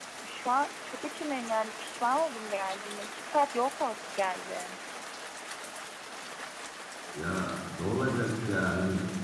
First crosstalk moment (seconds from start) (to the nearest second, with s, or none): none